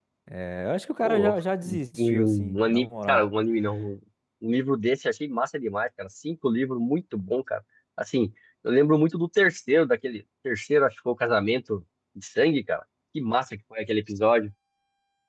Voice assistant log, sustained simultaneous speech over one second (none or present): present